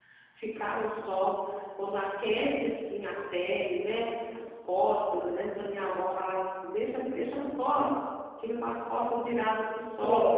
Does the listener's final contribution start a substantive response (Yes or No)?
Yes